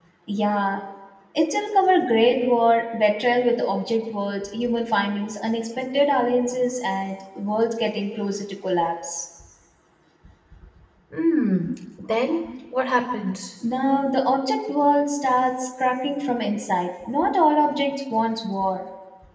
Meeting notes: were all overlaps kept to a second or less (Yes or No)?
Yes